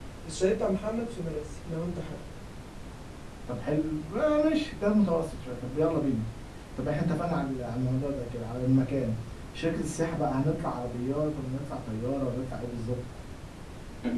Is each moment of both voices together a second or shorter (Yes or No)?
Yes